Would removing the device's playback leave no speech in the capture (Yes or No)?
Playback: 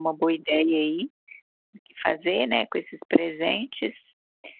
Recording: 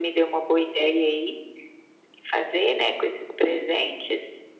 Yes